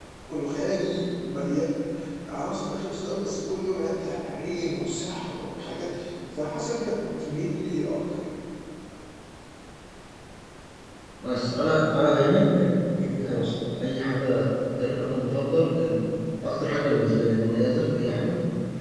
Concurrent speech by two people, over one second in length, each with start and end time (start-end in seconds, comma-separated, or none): none